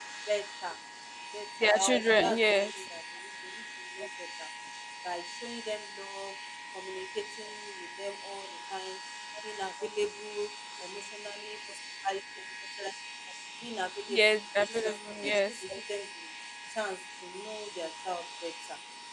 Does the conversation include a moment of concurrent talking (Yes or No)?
Yes